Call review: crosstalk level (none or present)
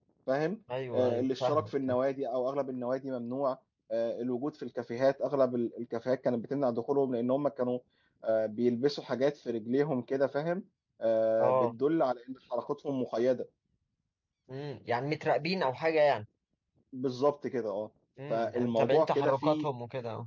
present